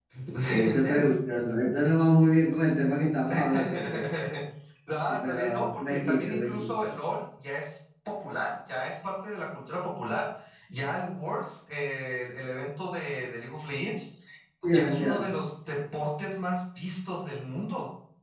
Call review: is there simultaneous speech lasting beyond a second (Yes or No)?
Yes